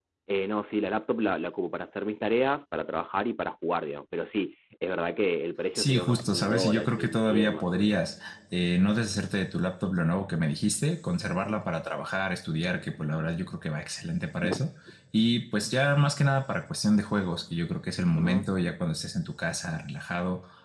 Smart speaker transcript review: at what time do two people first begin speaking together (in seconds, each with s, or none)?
5.8 s